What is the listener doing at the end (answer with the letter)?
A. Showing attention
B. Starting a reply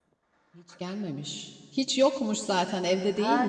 B